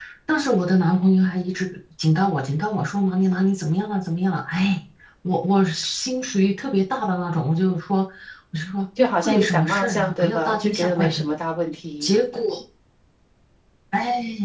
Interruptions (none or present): present